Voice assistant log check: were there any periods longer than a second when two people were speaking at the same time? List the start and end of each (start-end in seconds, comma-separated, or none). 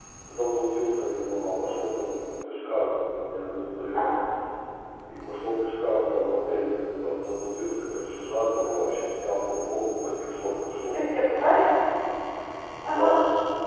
none